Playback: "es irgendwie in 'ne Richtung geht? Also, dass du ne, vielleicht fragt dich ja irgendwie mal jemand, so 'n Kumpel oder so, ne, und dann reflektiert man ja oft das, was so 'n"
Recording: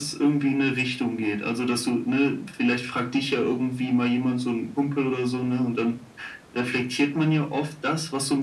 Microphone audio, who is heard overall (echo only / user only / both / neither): echo only